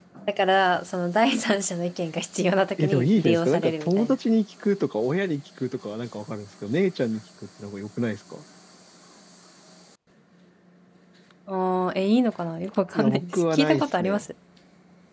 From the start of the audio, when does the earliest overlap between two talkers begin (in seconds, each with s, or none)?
2.8 s